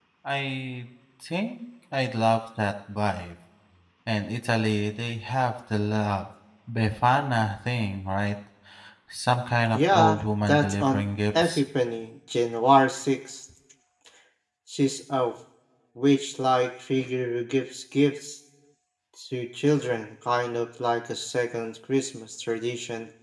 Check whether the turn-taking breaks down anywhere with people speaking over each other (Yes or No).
Yes